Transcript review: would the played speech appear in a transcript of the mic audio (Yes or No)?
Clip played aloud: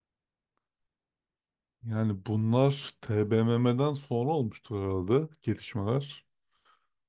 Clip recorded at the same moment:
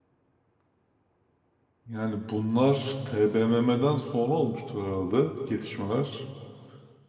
Yes